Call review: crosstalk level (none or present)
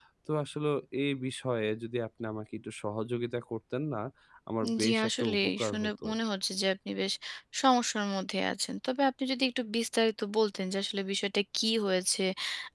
present